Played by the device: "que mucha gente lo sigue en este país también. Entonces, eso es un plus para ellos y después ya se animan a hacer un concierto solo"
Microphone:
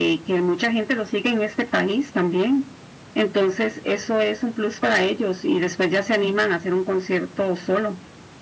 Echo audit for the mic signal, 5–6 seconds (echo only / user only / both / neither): echo only